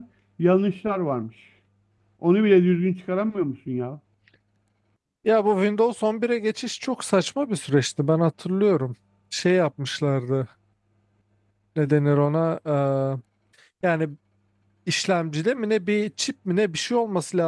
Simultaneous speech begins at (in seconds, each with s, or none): none